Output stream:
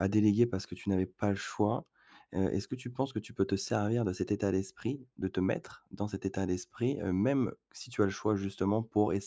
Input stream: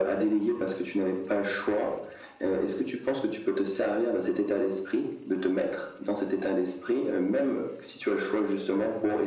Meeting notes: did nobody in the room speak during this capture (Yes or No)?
Yes